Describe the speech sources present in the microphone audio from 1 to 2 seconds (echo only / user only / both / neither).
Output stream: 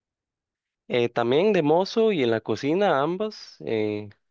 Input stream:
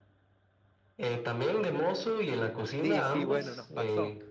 echo only